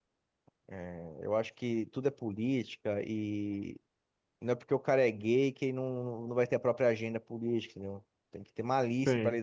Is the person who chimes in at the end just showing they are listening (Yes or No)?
Yes